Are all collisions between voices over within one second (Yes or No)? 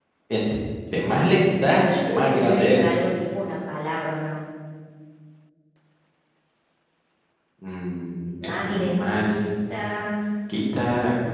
No